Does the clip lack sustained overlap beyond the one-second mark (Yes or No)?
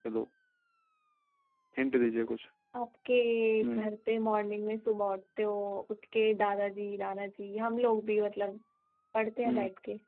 Yes